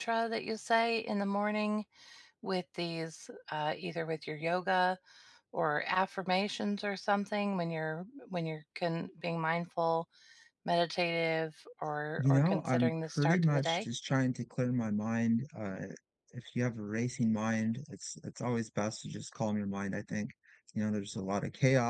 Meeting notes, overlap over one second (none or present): present